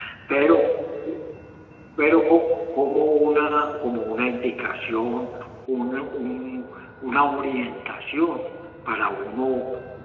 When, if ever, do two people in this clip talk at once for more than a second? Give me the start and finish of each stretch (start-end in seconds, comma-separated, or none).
none